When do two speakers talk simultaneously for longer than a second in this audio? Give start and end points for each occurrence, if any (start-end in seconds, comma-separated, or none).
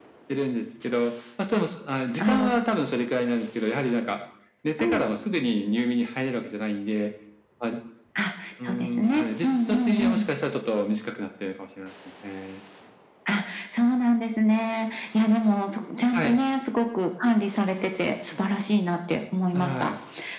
8.7-10.2